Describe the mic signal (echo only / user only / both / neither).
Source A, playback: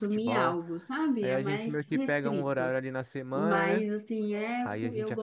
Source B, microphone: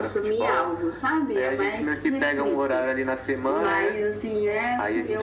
echo only